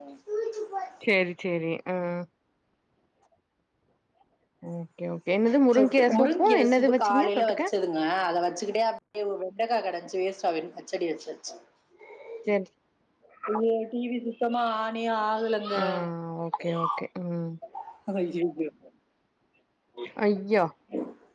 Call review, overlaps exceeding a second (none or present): present